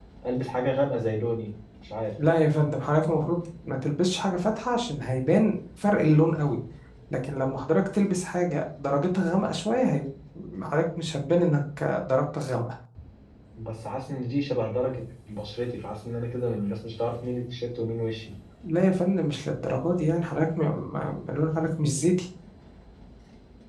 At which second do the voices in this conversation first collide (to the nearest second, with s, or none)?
none